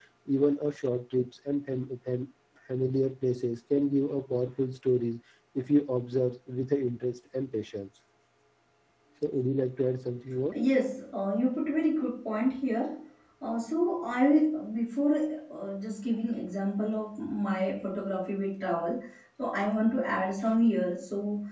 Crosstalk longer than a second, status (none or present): none